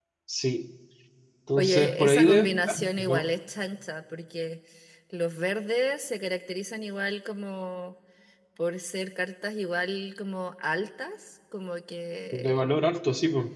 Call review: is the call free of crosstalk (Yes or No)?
No